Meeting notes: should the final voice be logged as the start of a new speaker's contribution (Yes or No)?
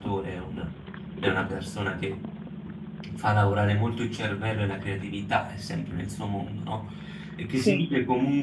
No